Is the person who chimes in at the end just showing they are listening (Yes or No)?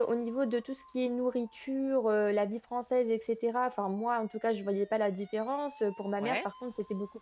Yes